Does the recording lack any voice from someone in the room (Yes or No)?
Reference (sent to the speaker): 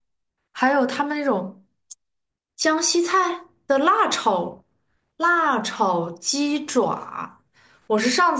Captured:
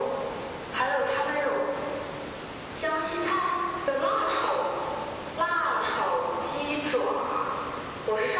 Yes